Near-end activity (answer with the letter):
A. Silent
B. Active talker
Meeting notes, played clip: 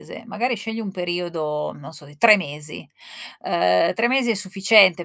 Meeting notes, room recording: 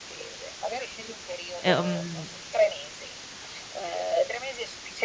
B